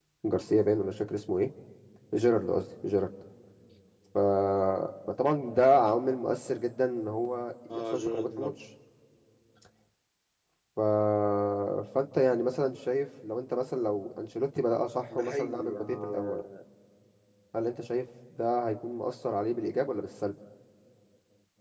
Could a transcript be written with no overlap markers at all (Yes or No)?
No